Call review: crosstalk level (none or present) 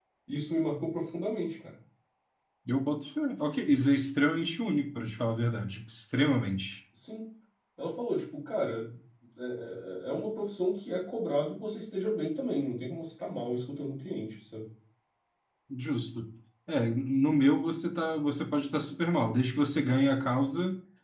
none